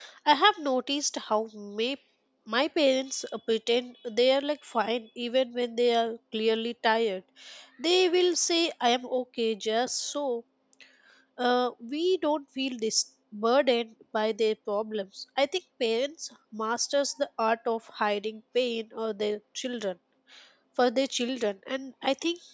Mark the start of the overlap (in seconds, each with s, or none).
none